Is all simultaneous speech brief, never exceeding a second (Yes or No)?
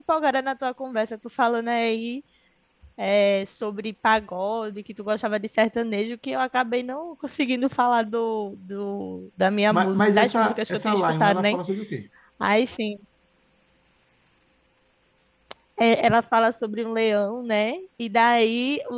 No